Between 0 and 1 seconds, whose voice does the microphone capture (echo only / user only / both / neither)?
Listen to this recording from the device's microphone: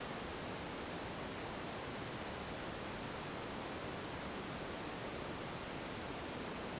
neither